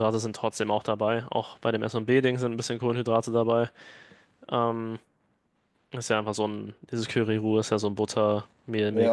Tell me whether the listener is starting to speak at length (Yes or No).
Yes